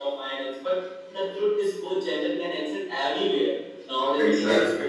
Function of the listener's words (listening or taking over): listening